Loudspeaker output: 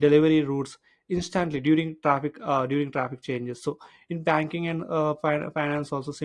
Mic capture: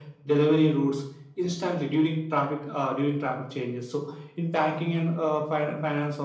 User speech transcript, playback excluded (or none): none